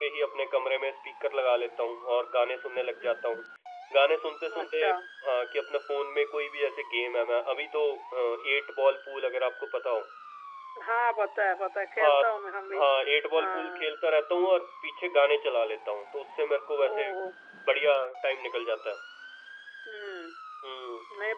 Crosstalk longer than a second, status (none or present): none